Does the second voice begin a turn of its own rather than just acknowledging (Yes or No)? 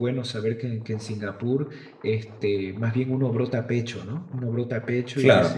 No